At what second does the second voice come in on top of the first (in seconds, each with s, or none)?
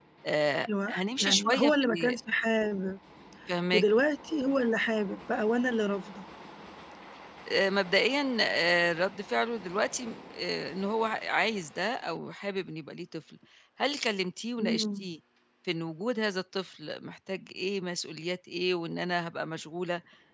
0.9 s